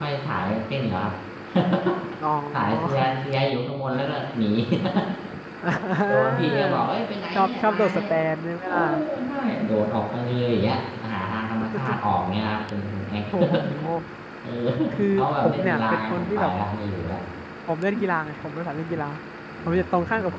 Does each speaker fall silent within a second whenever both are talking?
No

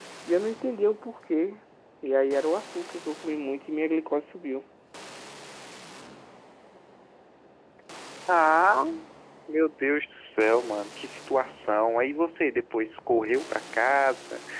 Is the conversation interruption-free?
Yes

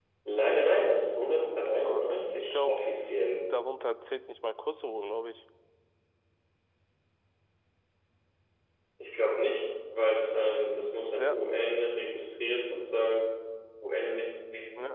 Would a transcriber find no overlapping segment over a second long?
No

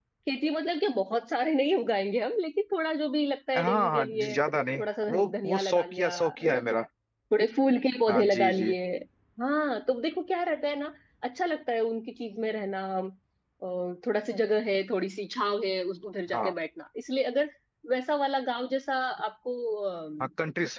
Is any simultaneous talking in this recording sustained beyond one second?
Yes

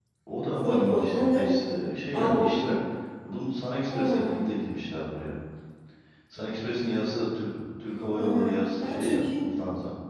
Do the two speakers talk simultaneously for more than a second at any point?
Yes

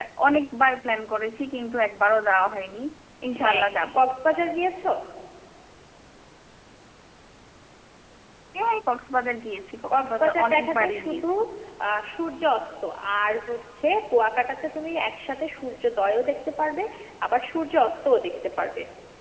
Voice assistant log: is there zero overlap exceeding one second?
No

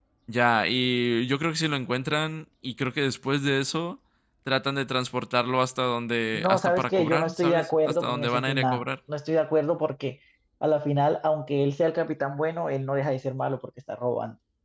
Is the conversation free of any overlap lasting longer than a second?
No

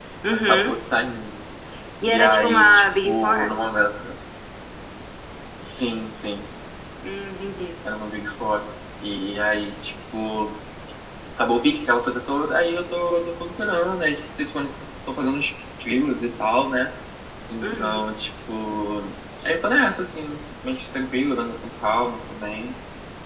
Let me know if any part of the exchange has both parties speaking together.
Yes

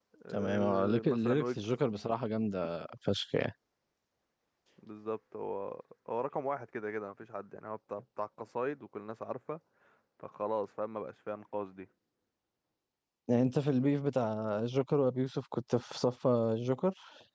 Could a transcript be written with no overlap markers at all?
No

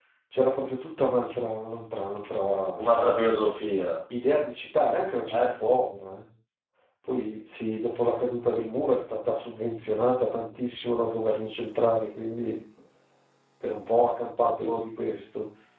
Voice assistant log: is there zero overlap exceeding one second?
Yes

